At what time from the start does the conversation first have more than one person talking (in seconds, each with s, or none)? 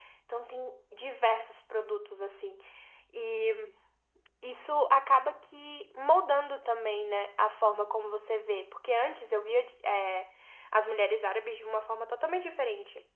none